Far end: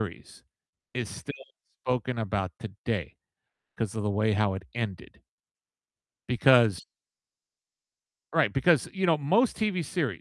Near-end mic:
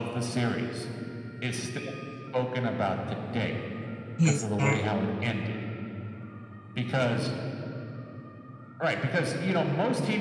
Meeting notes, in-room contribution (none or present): present